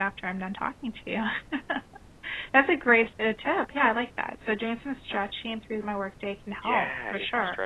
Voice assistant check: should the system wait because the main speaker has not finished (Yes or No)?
No